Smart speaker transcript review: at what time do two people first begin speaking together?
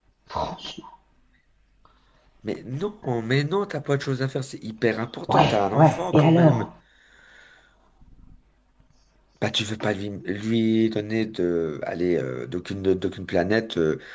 5.3 s

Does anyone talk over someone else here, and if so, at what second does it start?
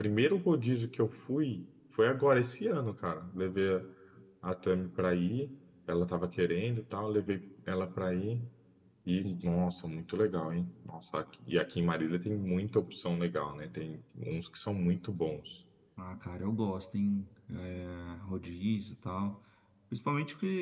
none

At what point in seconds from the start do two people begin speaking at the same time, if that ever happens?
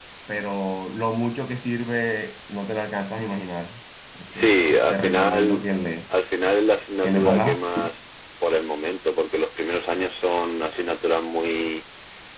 4.3 s

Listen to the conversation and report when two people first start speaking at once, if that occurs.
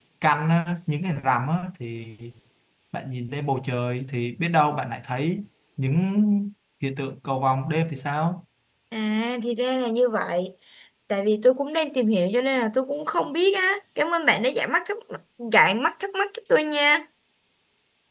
none

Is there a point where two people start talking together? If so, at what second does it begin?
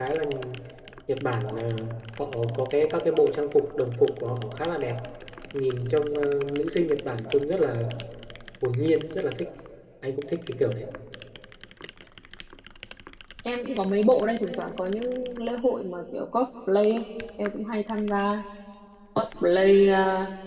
none

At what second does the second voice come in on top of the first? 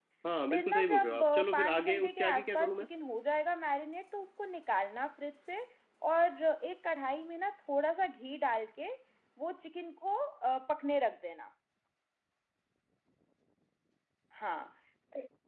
0.5 s

